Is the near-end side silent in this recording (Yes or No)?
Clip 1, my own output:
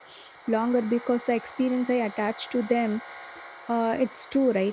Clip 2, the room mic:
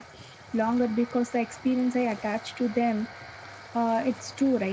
Yes